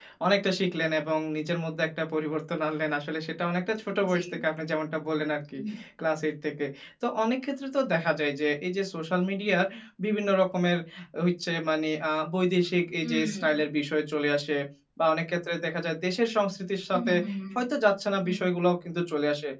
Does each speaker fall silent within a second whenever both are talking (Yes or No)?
Yes